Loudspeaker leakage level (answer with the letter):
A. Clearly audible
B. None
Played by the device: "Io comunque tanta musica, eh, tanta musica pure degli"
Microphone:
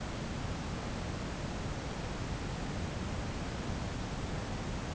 B